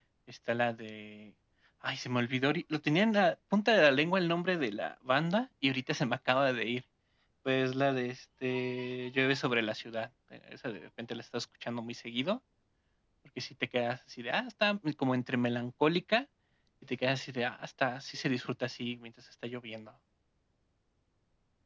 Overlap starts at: none

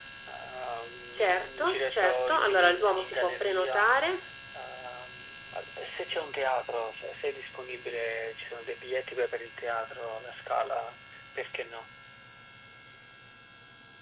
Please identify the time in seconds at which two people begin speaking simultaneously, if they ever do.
1.1 s

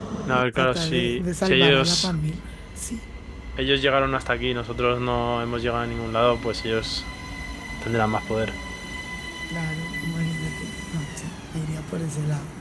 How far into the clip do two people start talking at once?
0.6 s

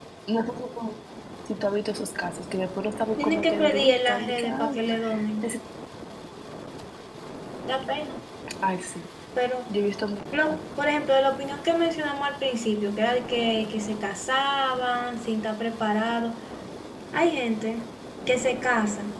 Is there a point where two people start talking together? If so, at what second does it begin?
3.2 s

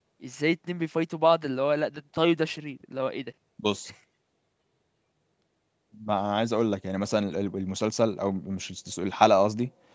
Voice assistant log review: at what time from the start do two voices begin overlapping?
none

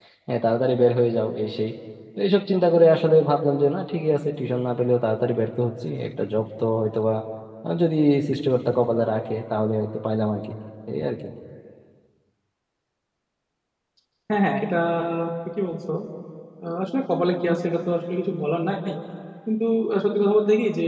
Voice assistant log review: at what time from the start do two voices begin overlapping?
none

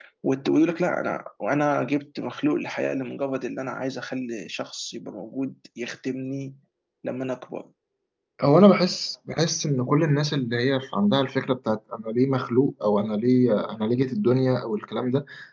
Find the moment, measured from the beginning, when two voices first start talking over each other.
none

